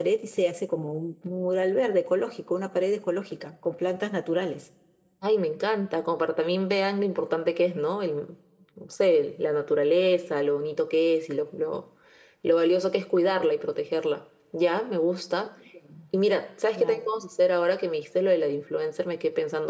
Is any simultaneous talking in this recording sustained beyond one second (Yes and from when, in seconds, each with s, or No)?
No